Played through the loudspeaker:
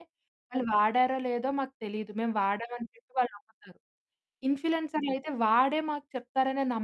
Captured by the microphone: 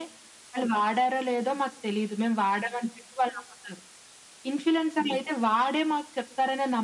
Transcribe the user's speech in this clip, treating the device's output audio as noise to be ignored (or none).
none